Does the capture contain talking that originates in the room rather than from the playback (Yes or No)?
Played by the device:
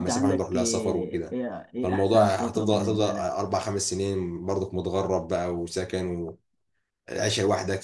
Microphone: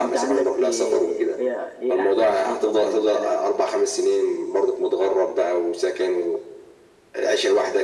No